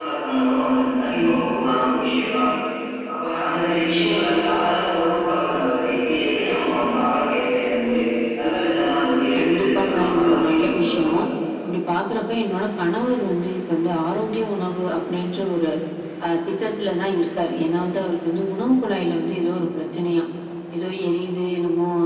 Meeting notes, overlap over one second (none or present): present